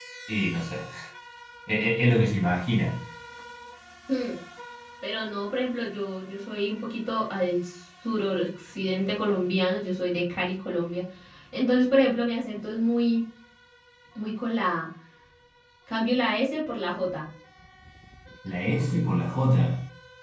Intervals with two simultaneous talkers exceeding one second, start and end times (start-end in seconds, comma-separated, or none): none